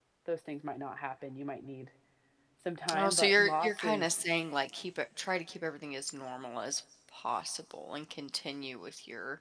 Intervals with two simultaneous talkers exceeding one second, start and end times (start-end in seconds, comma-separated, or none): 2.9-4.2